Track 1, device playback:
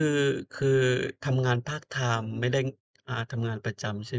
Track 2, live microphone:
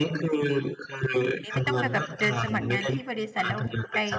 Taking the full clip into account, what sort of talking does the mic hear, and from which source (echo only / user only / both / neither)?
both